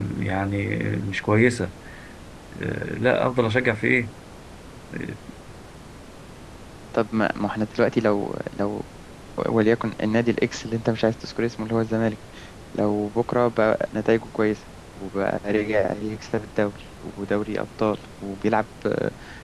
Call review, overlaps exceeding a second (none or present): none